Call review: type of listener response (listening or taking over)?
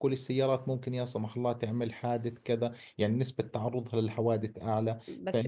taking over